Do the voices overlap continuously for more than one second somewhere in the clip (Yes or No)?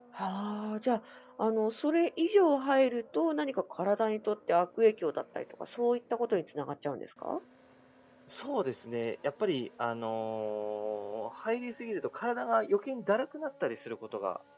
No